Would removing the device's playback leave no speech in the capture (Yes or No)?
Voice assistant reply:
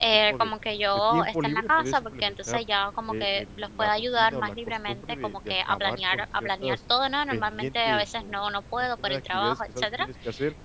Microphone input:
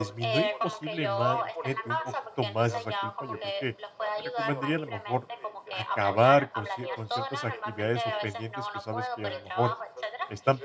No